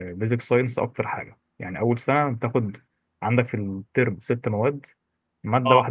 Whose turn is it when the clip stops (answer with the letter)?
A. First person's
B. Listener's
A